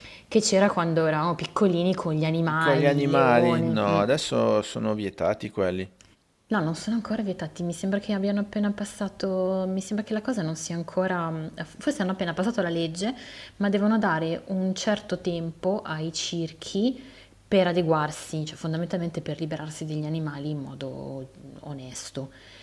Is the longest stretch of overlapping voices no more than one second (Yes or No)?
No